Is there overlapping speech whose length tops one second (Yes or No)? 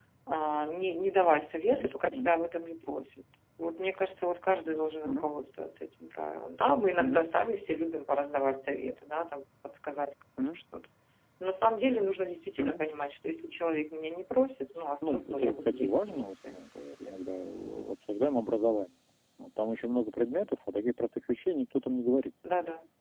Yes